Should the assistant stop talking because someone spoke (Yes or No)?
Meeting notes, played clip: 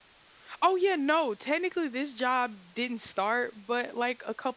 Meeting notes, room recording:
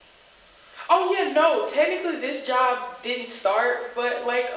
No